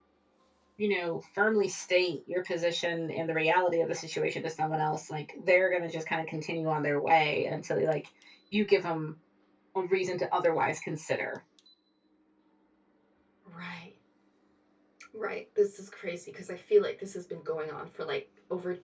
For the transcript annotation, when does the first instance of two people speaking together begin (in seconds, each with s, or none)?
none